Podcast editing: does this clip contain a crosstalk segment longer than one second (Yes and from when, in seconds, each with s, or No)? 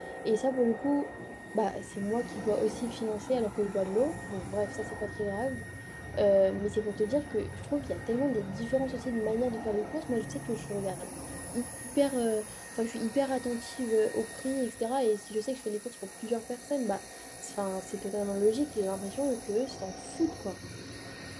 No